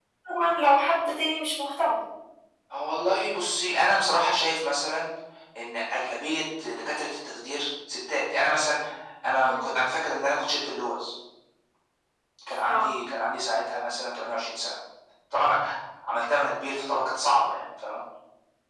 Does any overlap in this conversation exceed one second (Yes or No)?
No